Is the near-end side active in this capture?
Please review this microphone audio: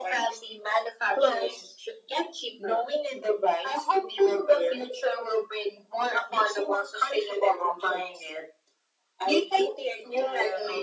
No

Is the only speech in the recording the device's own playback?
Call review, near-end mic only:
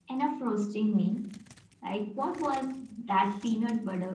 Yes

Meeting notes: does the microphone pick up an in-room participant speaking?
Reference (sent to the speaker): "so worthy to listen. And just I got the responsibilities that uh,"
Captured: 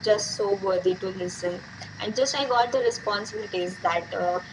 No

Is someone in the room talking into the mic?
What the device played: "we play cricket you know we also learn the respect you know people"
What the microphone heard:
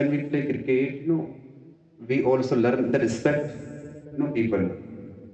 No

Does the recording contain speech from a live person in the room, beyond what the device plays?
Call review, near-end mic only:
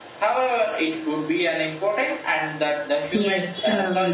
Yes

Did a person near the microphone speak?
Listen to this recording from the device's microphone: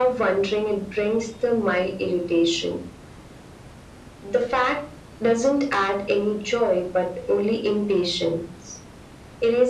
No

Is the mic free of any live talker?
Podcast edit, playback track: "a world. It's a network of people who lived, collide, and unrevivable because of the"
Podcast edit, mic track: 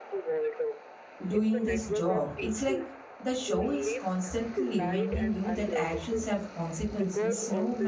No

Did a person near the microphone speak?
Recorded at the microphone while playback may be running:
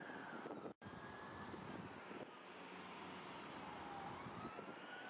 No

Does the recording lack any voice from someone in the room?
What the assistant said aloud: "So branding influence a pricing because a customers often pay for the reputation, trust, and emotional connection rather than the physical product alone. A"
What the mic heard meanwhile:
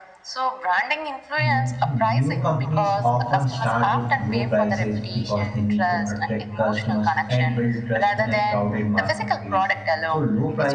No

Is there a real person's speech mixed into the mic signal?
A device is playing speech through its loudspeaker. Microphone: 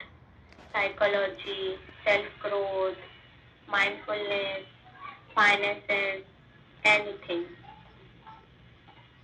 No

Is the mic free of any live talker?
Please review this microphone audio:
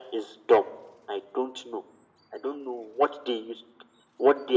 Yes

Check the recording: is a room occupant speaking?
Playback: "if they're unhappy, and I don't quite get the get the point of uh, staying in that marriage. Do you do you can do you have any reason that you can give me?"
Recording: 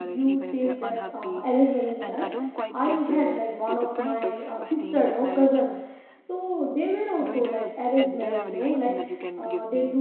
Yes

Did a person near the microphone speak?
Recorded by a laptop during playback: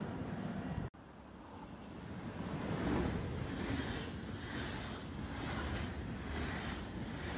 No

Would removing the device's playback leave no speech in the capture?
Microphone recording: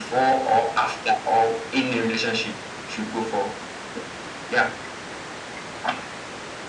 Yes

